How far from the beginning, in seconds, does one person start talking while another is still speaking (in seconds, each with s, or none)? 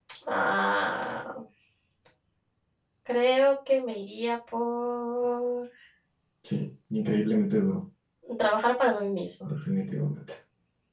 none